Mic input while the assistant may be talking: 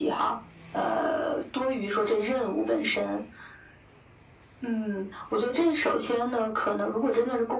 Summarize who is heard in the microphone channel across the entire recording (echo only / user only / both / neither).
echo only